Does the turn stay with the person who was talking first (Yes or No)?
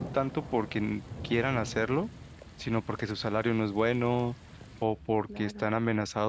Yes